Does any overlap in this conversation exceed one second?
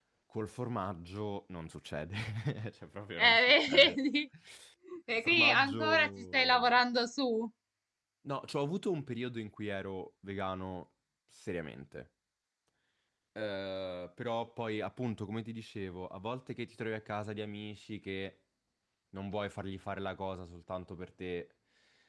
Yes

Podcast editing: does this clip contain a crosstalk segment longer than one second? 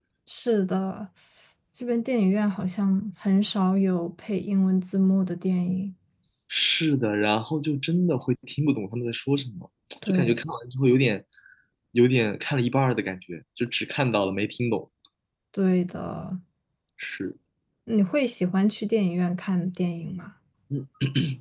No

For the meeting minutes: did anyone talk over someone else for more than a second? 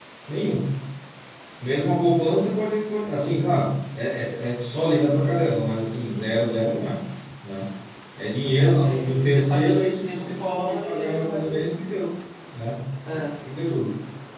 Yes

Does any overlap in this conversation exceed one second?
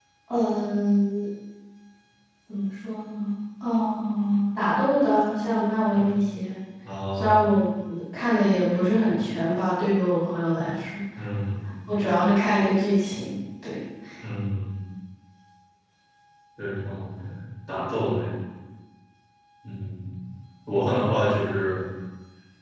No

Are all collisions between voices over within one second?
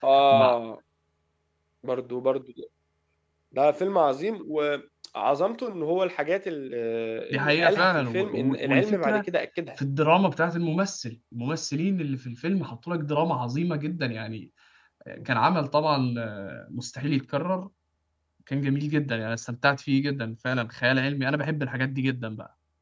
No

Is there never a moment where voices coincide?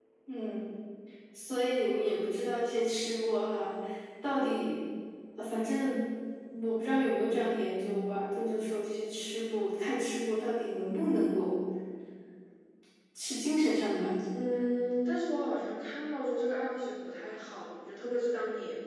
Yes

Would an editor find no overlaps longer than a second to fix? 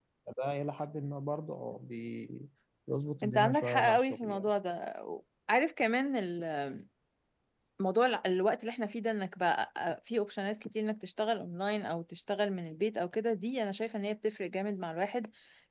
No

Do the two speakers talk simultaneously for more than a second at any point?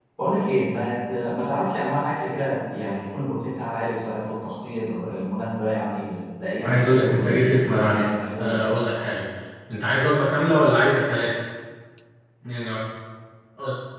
Yes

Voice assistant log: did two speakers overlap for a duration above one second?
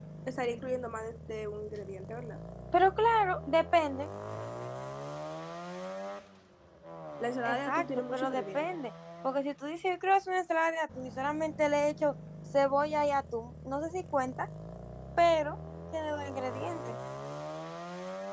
Yes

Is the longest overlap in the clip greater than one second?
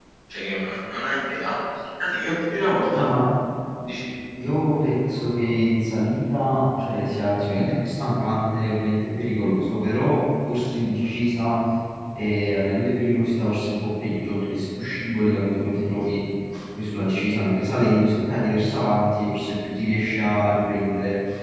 No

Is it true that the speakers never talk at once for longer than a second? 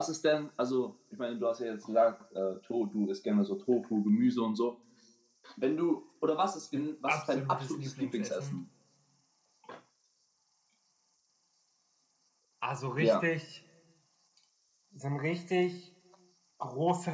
No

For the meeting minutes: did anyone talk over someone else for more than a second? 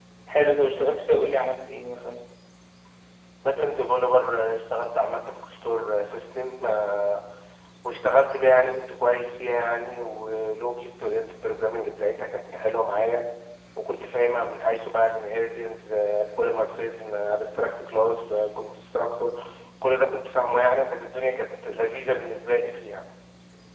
No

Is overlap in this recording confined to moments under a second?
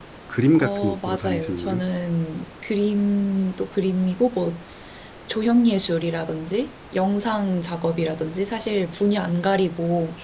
No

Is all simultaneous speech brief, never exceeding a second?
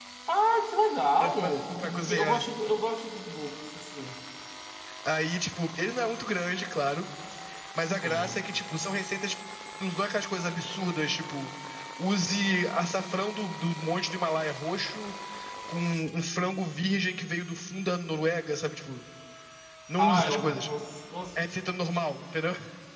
No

